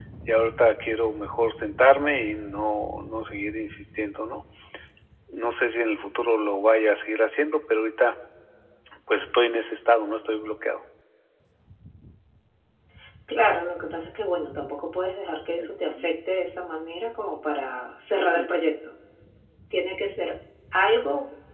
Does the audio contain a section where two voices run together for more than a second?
No

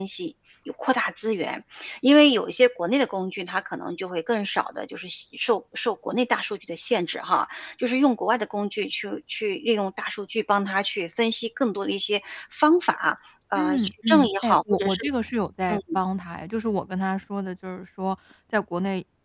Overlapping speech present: Yes, from 13.5 s

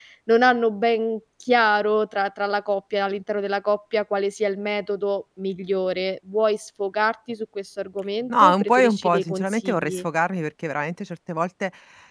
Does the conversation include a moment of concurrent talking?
Yes, from 8.3 s

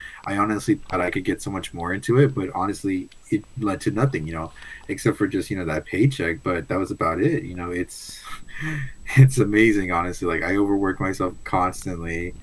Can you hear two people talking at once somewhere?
No

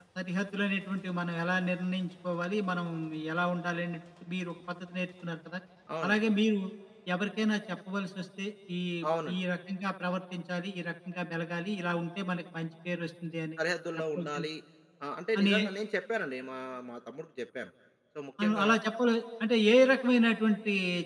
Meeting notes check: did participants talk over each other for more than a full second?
No

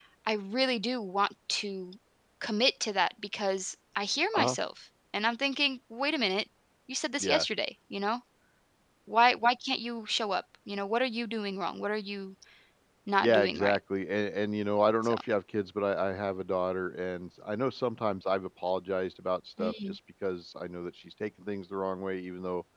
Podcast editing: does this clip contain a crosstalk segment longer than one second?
No

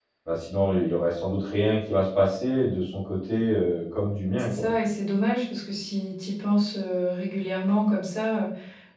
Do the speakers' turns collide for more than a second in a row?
No

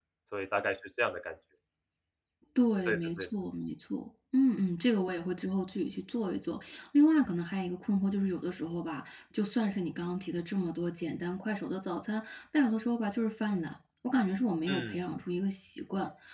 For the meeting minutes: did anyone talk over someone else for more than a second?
No

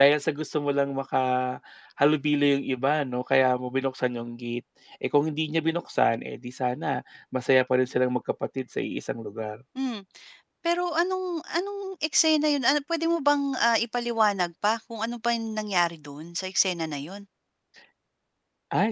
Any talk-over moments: No

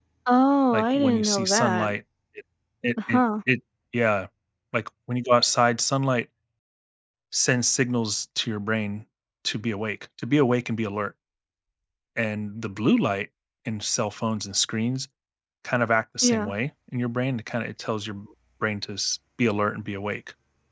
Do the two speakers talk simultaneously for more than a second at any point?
Yes, from 0.7 s

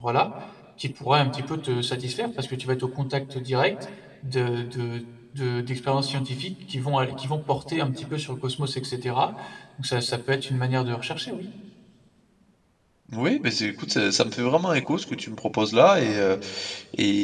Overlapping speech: No

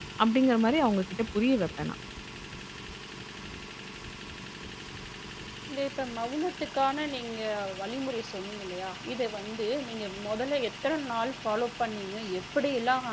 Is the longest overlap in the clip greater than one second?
No

